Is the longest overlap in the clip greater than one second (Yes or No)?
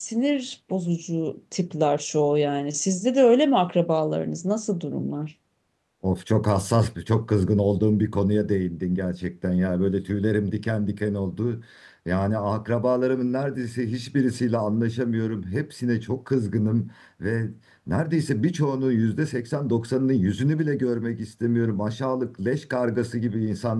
No